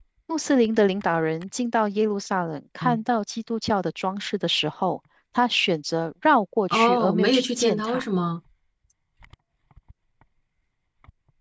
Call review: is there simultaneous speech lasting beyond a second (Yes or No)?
Yes